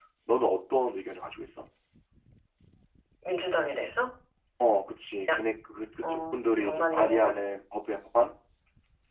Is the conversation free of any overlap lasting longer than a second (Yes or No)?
No